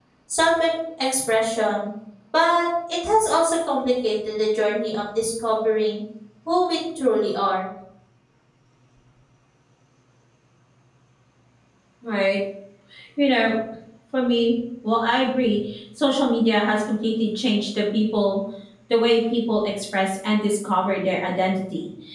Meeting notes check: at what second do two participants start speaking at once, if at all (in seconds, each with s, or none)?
none